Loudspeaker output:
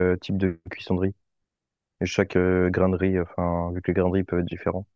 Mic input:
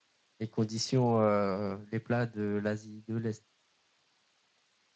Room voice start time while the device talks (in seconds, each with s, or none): 0.4 s